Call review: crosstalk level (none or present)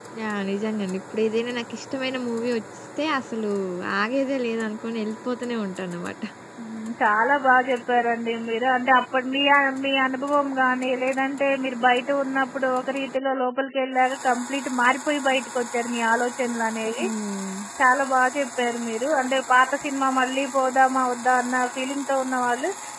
none